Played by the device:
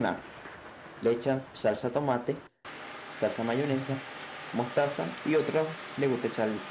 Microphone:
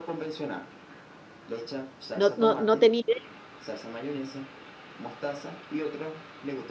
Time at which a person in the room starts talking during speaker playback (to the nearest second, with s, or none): 2 s